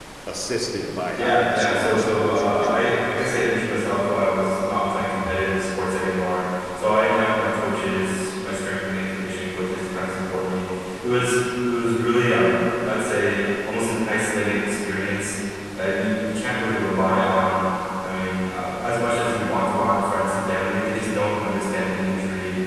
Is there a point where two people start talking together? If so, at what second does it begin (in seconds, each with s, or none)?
1.2 s